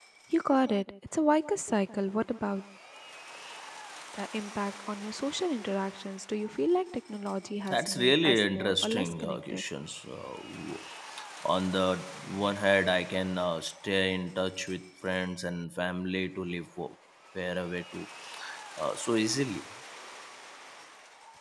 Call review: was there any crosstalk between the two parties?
Yes, from 7.7 s

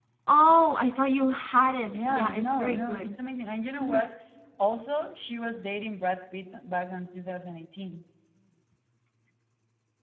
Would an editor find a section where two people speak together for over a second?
Yes, from 1.9 s

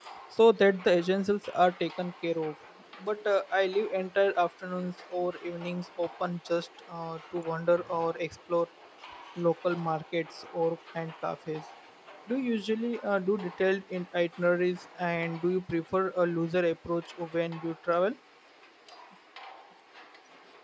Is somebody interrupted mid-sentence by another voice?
No

